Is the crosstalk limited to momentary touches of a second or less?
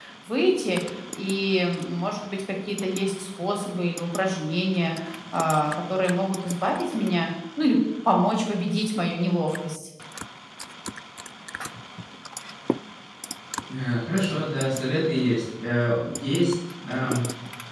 Yes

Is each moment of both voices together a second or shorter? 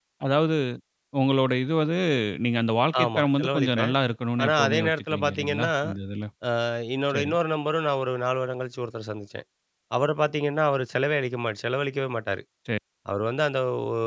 No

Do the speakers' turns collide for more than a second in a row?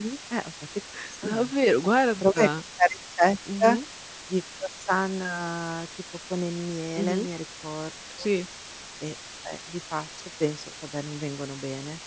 No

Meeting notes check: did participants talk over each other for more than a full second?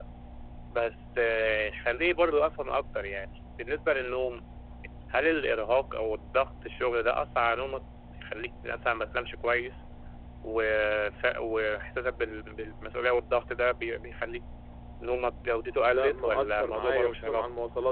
Yes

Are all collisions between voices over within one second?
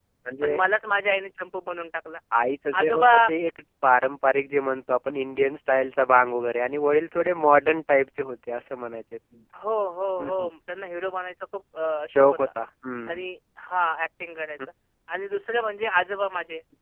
Yes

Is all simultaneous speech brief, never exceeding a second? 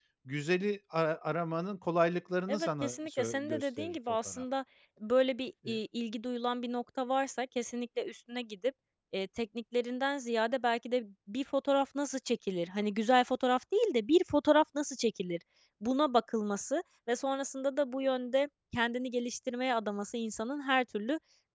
No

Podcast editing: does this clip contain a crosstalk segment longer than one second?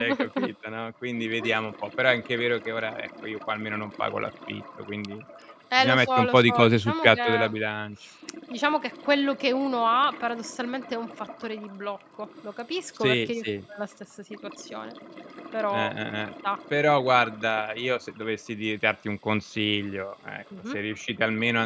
Yes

